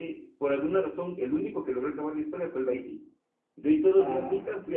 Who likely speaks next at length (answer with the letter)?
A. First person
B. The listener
A